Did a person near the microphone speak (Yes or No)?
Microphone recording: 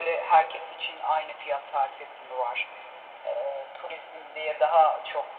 No